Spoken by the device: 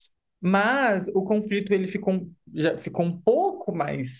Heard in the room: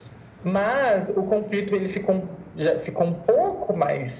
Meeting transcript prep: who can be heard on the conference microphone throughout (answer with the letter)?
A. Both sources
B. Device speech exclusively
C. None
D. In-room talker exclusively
B